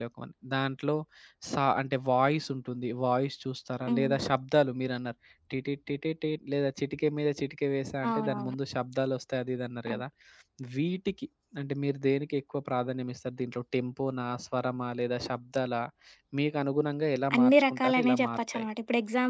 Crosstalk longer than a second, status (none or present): present